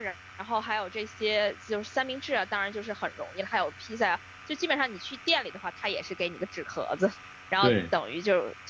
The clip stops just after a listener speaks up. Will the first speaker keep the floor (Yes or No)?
Yes